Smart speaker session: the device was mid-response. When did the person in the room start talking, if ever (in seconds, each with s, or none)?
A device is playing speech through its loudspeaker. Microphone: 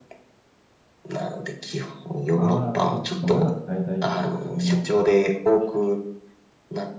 2.3 s